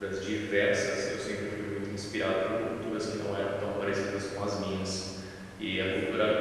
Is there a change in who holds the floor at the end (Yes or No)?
No